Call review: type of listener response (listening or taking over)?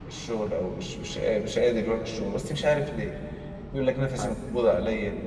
listening